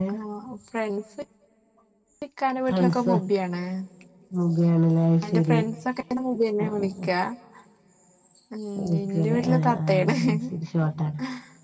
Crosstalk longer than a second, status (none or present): present